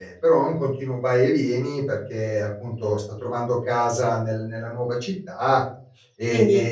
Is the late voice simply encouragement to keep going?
Yes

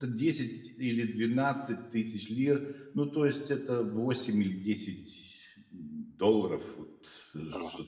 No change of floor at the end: No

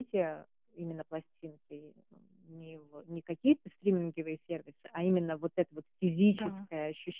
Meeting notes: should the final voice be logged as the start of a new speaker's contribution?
No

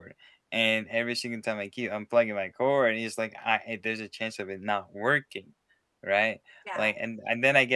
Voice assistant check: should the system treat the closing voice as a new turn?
No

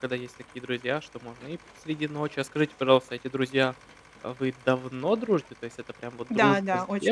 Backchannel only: No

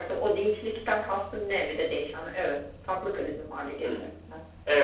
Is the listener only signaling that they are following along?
No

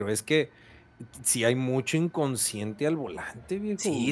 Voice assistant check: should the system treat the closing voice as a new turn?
Yes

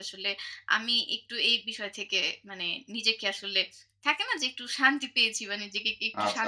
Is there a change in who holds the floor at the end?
Yes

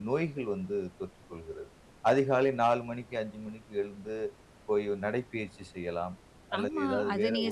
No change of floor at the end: No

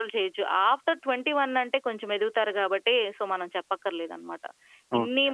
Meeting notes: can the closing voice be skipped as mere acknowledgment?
Yes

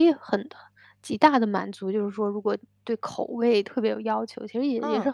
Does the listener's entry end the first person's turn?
No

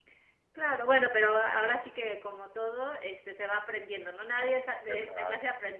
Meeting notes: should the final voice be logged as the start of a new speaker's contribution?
No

